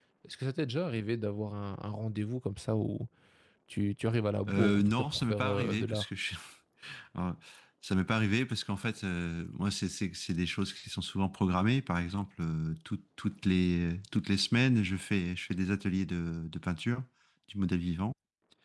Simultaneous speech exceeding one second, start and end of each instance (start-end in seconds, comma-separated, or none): 4.5-6.0